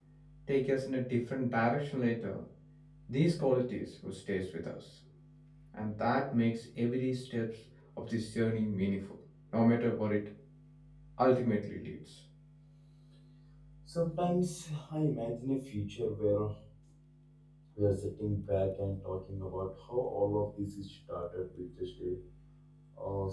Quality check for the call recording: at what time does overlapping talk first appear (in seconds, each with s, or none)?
none